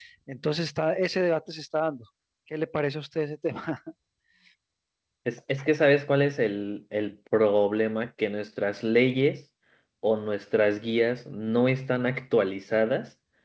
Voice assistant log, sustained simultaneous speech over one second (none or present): none